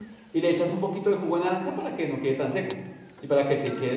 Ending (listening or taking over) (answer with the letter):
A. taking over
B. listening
A